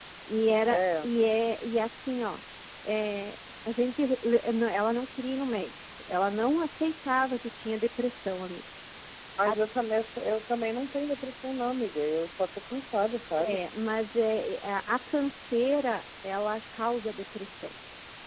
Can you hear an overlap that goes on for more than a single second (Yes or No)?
No